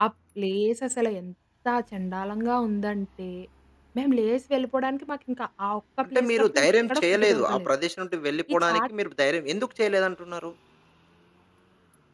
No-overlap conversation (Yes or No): No